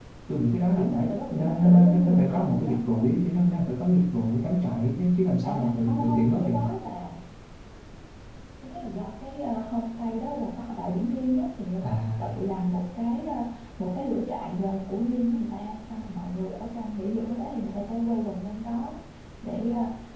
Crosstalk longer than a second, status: present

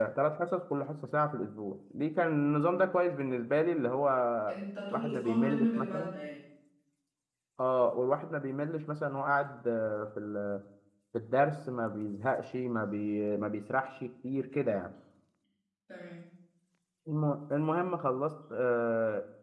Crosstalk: present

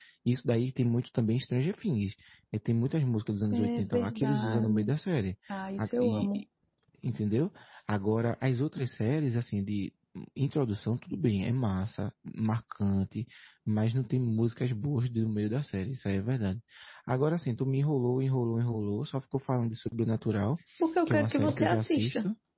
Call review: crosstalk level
present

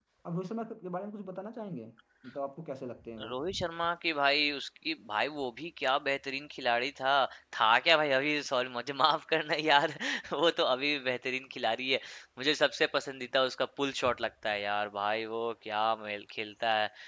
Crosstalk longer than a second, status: none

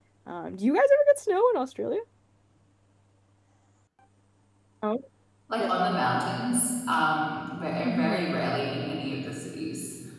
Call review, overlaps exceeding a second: none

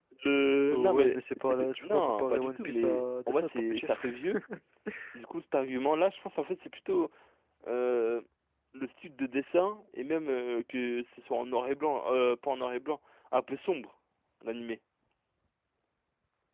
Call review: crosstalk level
present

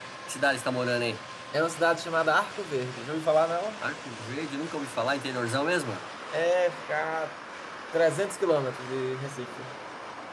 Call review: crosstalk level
none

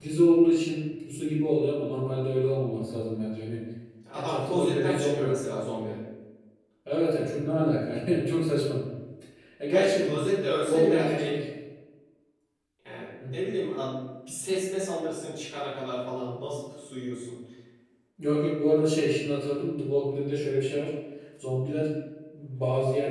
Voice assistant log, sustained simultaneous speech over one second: present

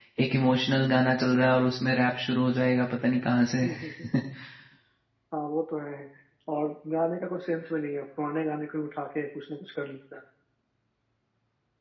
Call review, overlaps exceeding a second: none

